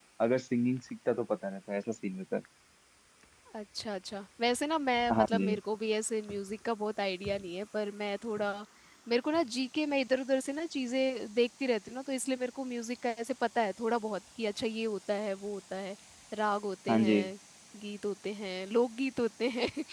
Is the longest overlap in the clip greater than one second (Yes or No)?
No